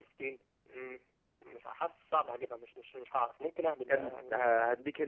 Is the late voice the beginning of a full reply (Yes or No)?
Yes